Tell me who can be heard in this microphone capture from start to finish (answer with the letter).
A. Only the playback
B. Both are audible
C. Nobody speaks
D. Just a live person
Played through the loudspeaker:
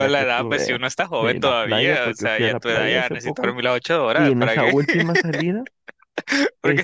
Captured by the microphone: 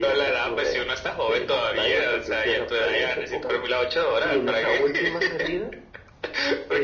A